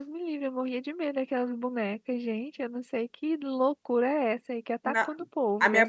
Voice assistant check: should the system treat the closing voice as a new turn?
Yes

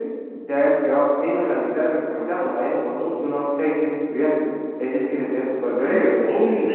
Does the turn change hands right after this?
Yes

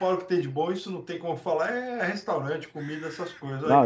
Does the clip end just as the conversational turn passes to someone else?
Yes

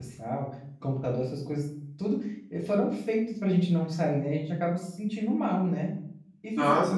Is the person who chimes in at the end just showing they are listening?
Yes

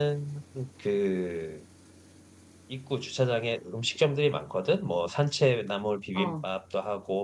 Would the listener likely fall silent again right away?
Yes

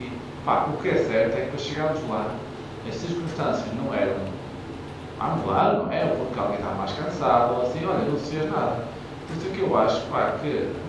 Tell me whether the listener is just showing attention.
Yes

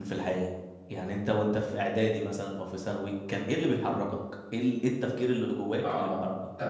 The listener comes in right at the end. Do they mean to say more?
Yes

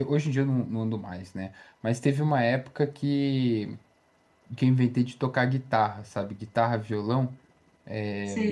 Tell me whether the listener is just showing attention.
Yes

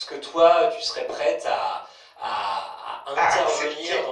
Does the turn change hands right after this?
No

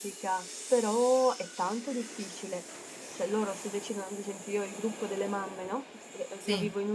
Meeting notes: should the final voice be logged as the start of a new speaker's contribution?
No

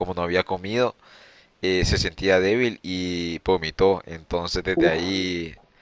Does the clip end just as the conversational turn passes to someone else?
No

